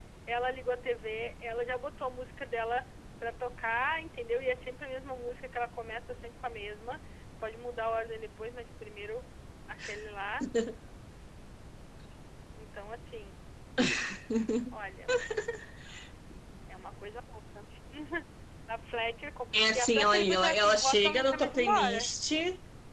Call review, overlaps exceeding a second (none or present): present